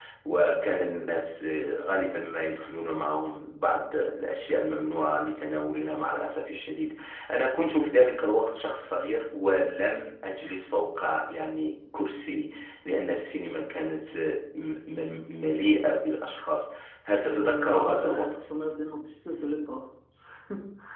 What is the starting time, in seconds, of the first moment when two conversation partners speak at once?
17 s

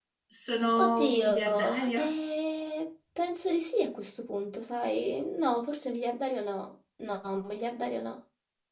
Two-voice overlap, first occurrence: 1 s

